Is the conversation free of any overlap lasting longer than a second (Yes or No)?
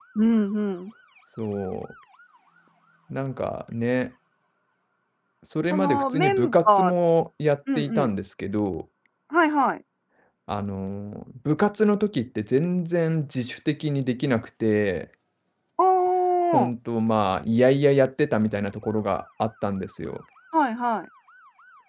No